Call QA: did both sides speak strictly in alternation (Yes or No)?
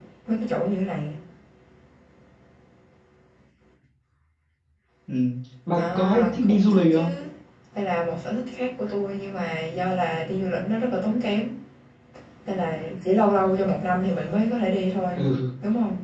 No